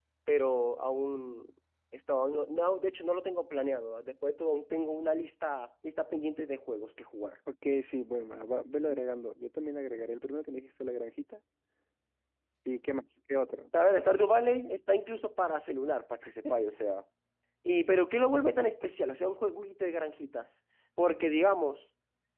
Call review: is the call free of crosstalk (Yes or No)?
Yes